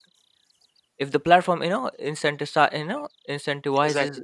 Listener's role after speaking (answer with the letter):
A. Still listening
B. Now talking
A